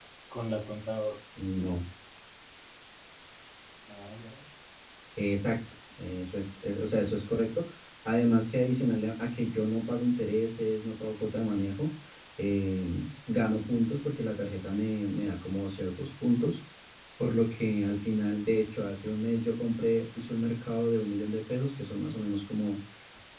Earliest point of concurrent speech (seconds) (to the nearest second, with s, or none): none